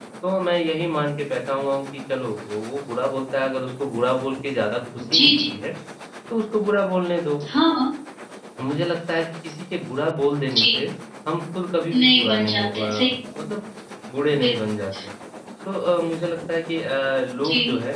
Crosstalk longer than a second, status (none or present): present